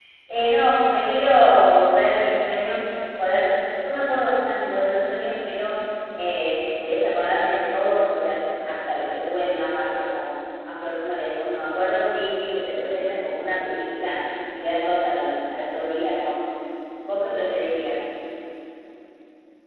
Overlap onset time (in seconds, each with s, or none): none